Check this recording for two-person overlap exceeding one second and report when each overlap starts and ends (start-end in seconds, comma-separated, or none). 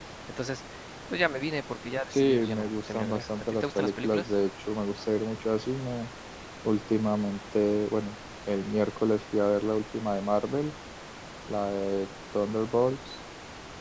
2.1-4.3